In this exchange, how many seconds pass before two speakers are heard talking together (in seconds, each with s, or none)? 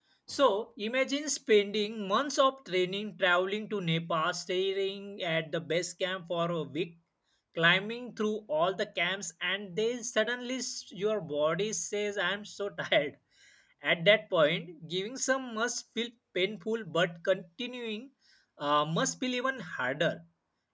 none